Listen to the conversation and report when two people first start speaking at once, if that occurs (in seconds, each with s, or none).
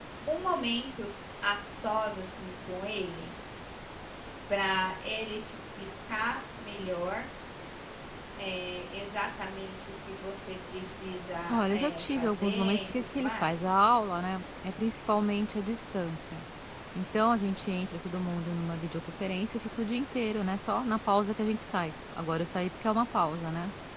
11.5 s